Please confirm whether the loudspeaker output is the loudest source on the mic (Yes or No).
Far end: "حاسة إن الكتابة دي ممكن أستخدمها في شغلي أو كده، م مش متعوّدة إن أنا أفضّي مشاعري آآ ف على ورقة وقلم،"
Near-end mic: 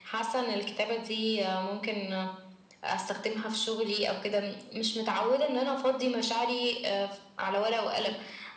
Yes